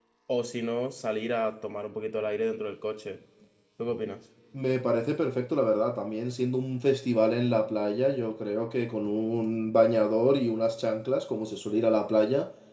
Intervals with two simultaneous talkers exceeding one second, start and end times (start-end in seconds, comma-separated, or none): none